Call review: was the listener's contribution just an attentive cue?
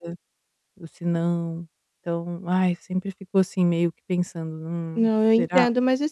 No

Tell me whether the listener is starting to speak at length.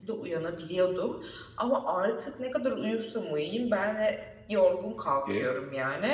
No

